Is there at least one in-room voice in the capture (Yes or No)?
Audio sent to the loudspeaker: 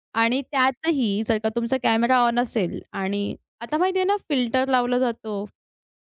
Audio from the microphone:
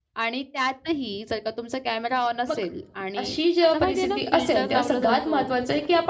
Yes